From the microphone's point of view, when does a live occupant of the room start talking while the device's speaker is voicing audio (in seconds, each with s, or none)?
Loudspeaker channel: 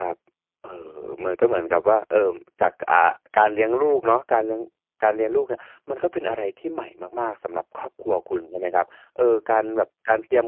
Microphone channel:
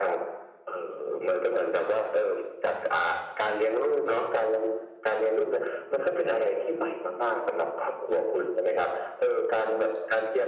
none